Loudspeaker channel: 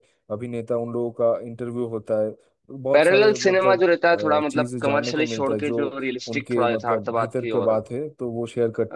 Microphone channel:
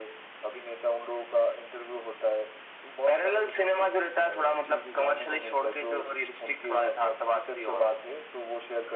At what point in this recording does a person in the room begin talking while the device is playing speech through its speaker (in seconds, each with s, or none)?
none